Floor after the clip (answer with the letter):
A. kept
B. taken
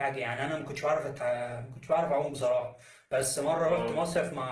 A